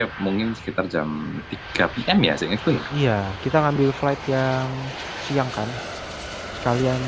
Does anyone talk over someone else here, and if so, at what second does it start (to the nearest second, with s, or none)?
none